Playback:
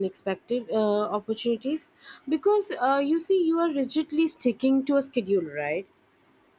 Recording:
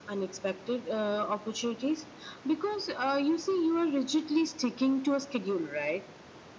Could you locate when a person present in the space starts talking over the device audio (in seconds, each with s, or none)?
none